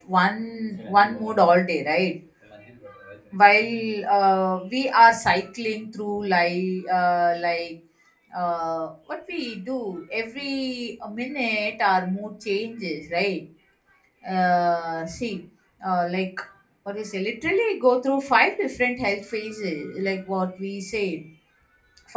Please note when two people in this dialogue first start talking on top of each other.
none

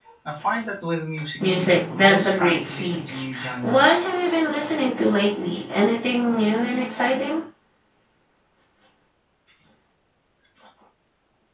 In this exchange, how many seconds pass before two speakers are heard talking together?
1.4 s

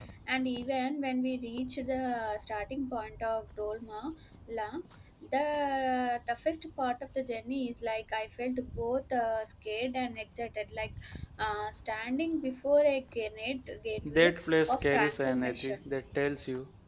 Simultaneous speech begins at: 14.0 s

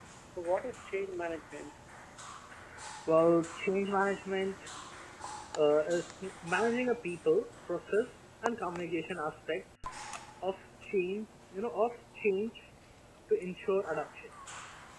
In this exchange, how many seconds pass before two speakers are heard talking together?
none

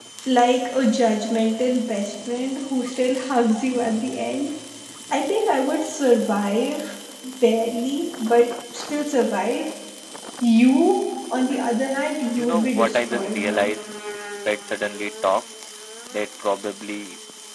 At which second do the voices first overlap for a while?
12.4 s

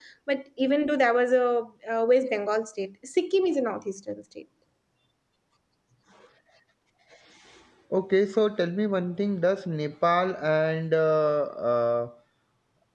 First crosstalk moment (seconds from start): none

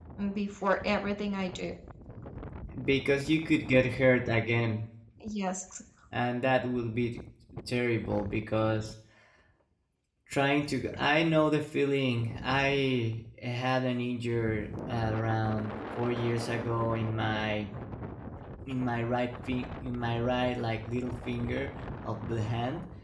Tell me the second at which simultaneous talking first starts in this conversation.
none

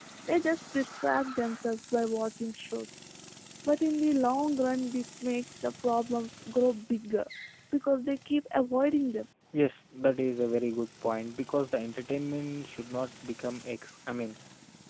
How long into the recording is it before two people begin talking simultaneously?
none

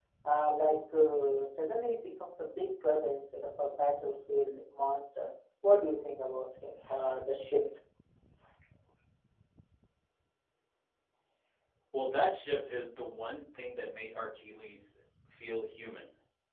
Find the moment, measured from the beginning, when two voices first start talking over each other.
none

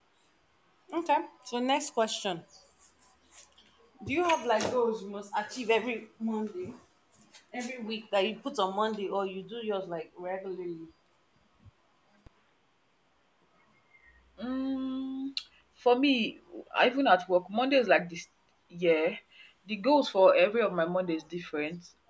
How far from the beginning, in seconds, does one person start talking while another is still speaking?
none

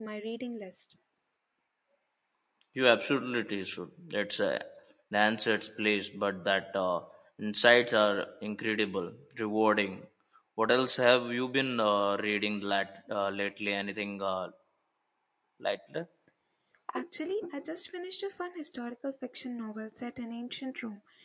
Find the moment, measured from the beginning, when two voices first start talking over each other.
none

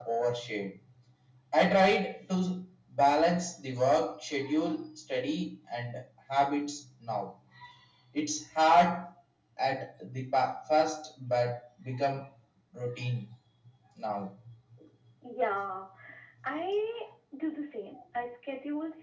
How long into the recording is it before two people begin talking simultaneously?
none

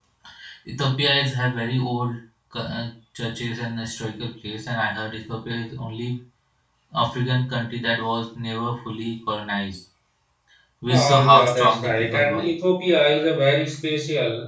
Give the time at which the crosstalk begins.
10.9 s

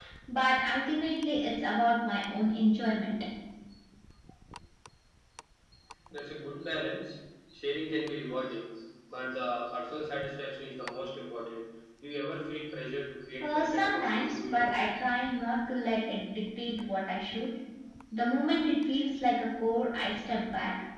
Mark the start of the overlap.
13.4 s

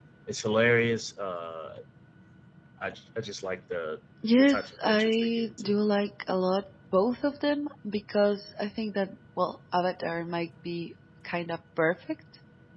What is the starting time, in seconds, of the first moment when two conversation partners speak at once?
4.2 s

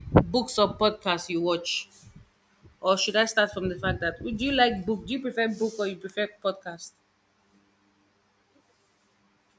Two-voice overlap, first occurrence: none

